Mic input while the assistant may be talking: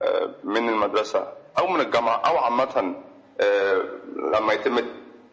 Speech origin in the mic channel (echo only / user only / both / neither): echo only